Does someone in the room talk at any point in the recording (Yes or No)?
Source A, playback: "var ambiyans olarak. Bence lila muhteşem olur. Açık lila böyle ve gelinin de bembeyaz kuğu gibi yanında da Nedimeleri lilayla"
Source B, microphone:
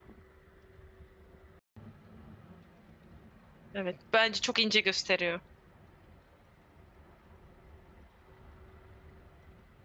Yes